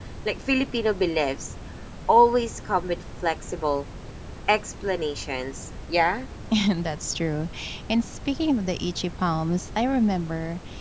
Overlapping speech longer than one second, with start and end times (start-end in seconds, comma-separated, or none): none